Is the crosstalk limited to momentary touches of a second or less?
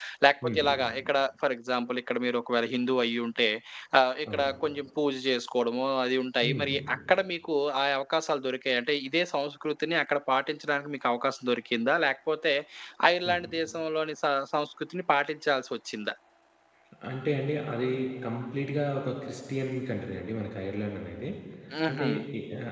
Yes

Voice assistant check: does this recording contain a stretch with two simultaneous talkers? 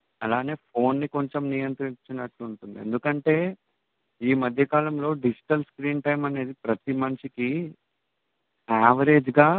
No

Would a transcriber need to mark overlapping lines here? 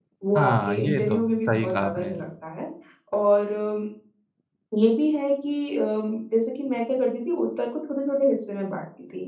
Yes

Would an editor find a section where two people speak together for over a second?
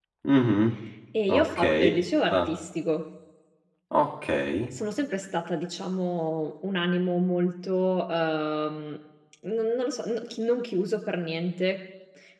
No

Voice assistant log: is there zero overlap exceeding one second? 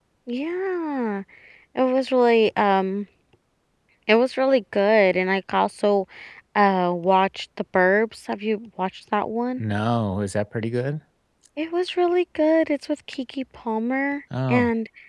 Yes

